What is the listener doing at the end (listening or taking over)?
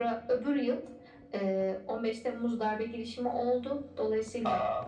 listening